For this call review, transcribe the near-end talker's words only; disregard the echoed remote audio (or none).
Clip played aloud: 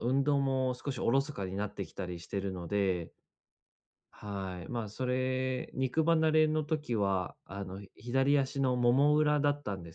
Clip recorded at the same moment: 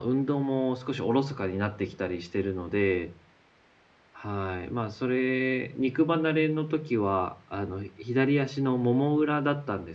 none